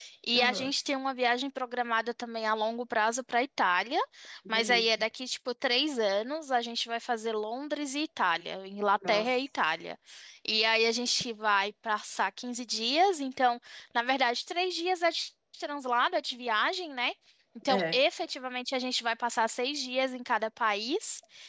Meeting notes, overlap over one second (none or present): none